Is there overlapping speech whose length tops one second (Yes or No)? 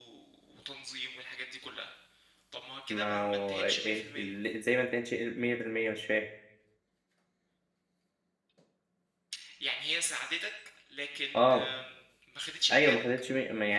Yes